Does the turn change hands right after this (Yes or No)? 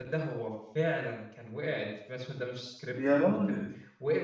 No